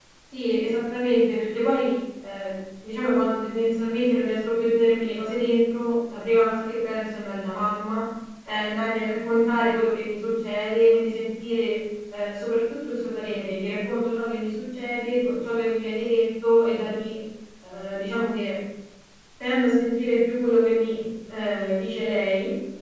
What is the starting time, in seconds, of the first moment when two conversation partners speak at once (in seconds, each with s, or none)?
none